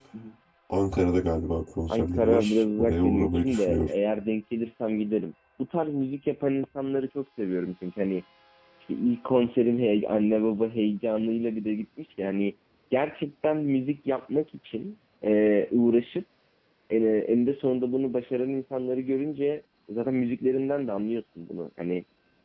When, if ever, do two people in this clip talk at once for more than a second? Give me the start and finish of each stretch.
1.9-3.9

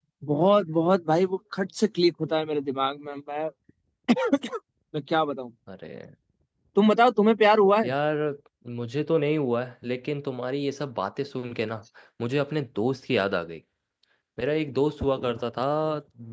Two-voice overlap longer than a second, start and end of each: none

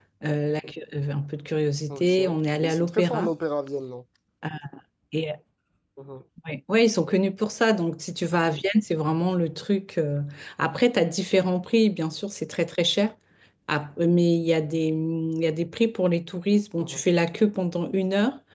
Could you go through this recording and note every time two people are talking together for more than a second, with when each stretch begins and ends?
1.9-3.3

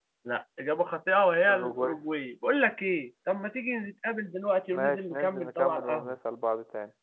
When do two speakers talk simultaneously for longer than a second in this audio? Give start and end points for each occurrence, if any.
4.7-6.2

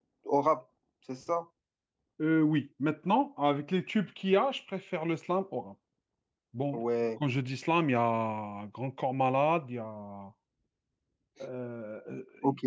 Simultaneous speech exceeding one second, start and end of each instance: none

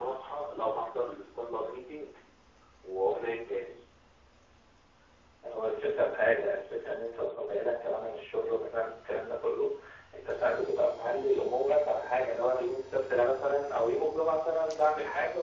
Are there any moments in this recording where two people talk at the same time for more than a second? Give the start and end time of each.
none

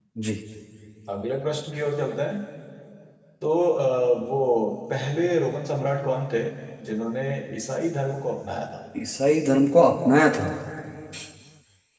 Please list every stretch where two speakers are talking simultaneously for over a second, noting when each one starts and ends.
none

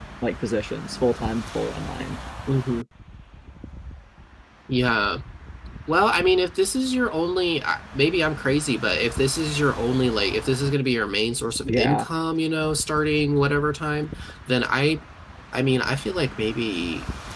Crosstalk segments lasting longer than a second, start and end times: none

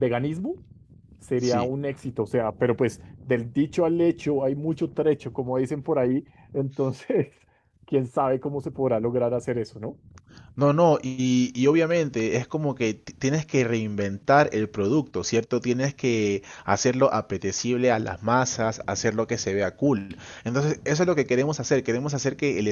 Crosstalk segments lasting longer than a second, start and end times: none

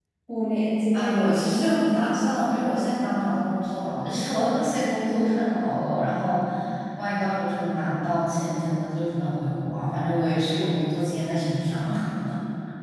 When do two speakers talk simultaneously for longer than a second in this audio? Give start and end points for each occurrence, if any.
0.9-2.4

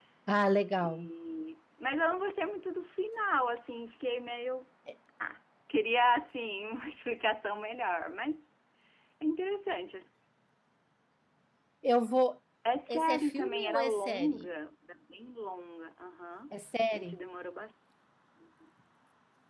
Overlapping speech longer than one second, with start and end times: 12.9-14.4

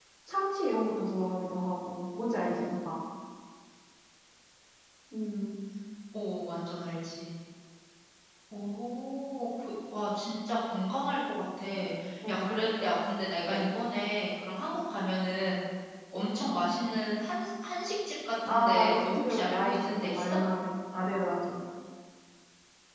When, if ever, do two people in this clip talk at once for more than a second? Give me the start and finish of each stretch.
18.4-20.4

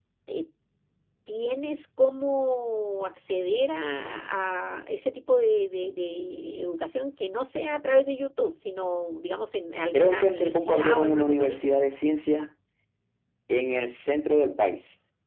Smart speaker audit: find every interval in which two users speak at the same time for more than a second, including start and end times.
9.9-11.6

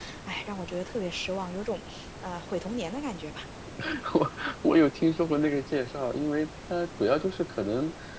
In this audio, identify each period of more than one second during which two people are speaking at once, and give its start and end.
none

